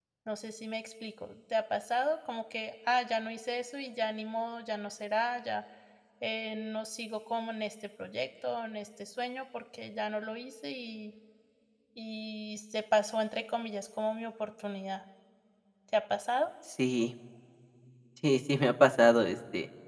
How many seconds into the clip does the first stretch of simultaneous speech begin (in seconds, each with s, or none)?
none